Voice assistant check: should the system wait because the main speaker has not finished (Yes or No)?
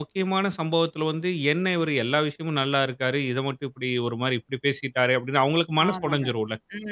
No